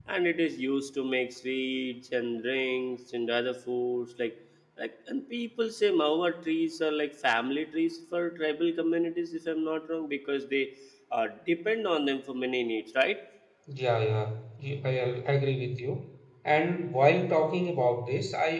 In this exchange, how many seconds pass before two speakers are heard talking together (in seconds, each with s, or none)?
none